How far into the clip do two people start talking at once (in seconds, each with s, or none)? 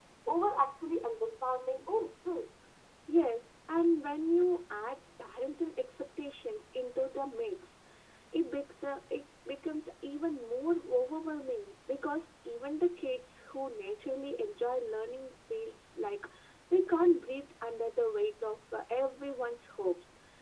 none